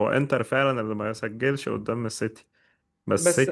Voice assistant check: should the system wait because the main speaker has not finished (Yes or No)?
Yes